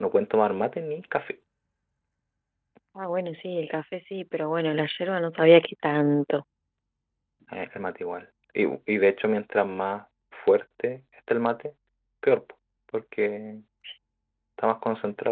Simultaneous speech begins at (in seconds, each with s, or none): none